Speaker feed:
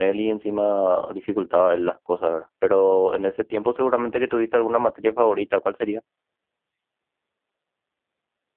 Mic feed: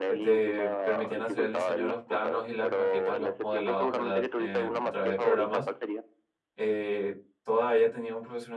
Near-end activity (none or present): present